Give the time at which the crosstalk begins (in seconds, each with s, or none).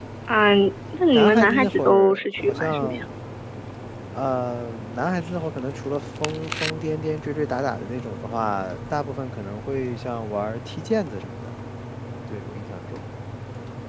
1.1 s